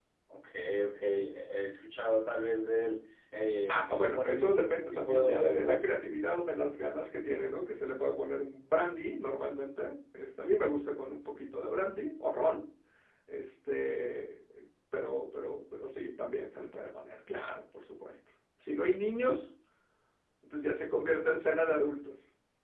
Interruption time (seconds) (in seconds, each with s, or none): 3.7 s